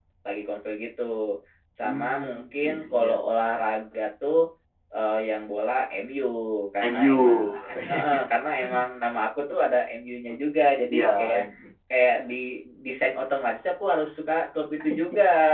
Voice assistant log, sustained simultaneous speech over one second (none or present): present